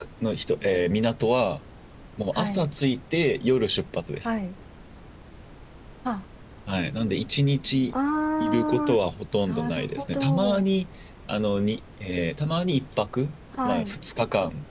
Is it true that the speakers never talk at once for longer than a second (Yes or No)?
No